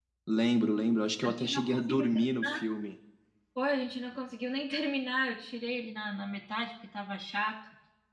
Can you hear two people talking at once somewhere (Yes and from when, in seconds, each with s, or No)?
Yes, from 1.2 s